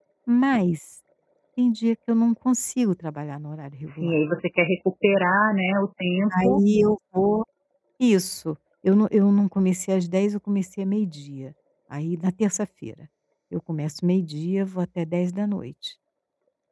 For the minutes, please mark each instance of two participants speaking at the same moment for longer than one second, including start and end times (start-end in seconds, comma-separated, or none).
none